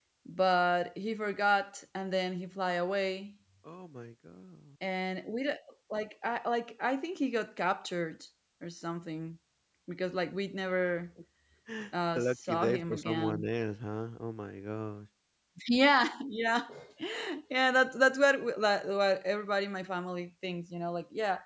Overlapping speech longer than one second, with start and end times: 12.2-13.5

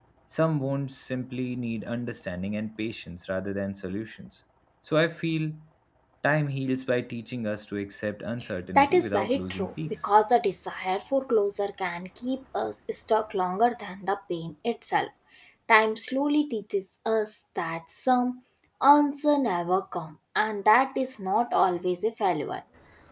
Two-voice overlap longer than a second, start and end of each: 8.8-10.0

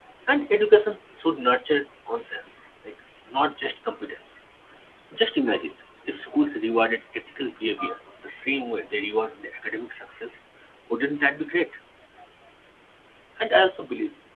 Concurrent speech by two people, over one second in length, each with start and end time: none

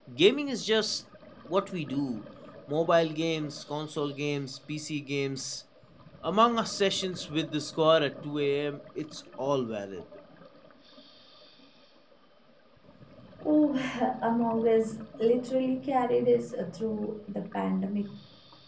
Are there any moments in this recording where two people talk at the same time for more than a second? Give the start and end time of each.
none

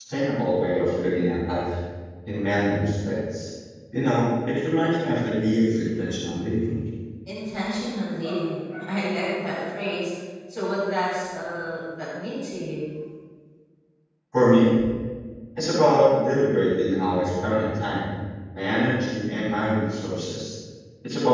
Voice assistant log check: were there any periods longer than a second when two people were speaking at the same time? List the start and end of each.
none

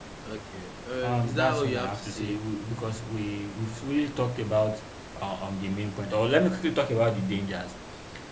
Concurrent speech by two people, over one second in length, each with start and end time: 1.0-2.4

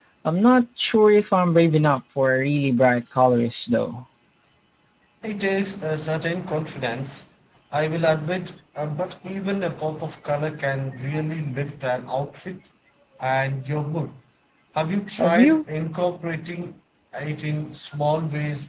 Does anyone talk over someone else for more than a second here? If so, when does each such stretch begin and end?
none

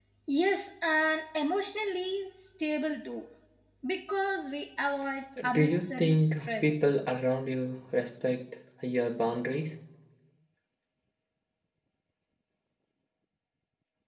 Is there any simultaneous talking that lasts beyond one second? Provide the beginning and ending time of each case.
5.5-6.8

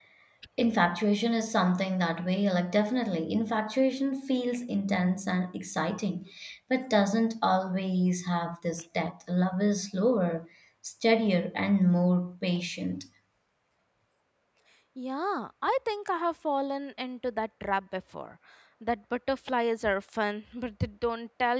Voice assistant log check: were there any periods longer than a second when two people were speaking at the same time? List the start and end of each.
none

